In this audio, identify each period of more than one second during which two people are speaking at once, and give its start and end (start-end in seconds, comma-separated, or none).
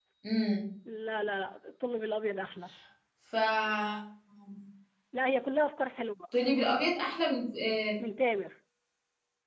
none